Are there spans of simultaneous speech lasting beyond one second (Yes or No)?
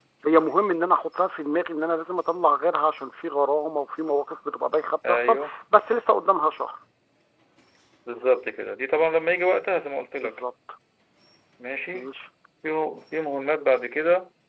No